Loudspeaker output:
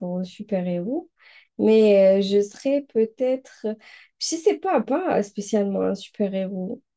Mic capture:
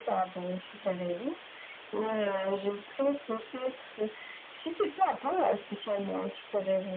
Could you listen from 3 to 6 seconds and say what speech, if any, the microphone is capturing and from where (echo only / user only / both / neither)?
echo only